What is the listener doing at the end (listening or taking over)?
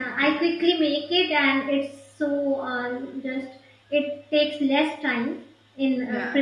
listening